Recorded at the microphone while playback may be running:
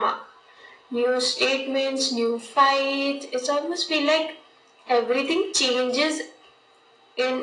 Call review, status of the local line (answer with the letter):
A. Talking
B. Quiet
B